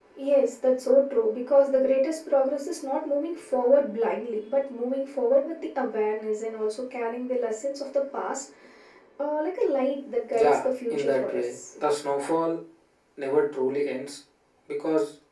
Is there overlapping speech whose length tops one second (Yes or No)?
Yes